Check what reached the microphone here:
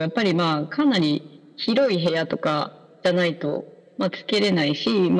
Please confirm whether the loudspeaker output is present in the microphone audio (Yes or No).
Yes